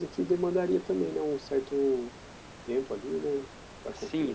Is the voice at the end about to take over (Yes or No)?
Yes